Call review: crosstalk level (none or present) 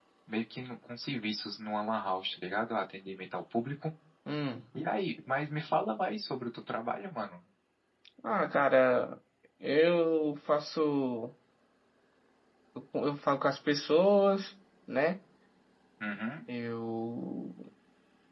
none